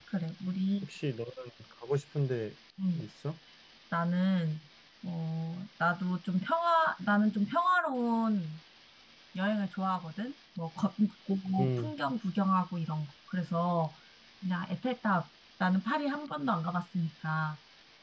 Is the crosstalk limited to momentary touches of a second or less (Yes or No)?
Yes